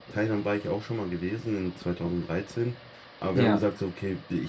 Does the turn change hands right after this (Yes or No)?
No